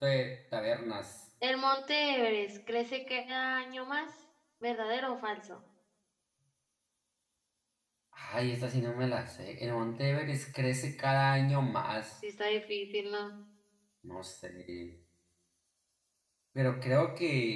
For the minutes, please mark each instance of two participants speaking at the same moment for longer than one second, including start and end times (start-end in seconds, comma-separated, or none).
none